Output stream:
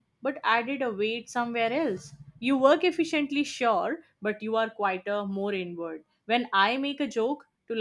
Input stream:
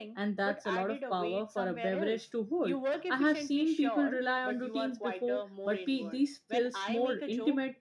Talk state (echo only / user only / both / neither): both